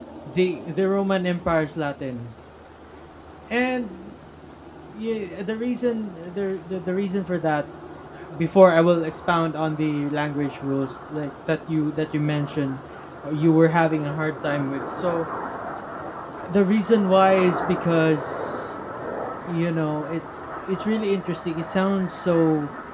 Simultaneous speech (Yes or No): No